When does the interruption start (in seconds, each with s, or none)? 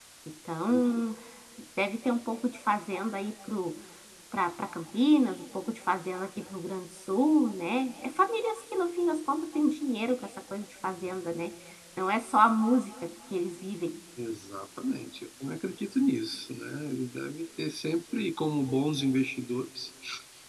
none